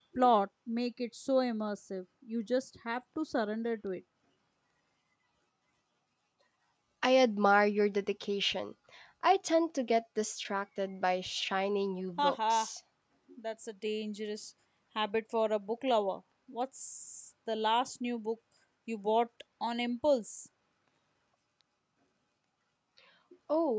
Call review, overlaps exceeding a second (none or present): none